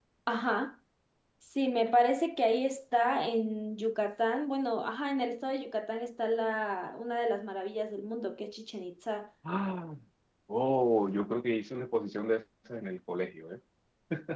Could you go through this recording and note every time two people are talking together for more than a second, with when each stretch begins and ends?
none

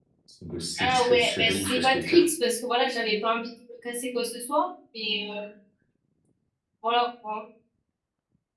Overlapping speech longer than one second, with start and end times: 0.8-2.3

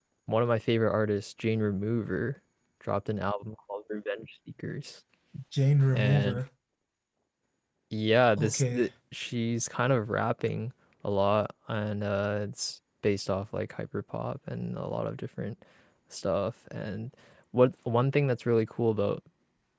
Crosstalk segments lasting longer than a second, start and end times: none

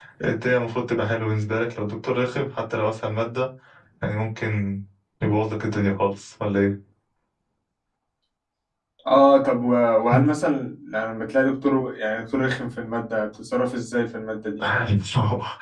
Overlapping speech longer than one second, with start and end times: none

